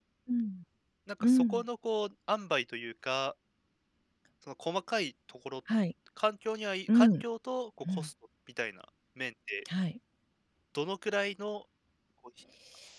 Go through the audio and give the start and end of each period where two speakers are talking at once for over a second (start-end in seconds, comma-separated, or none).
none